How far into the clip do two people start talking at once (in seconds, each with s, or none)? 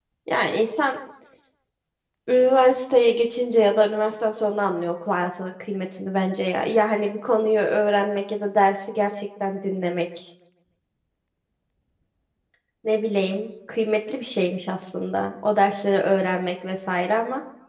none